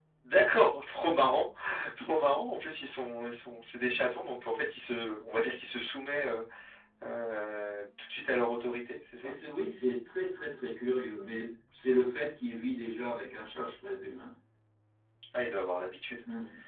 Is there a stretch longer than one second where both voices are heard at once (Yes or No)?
No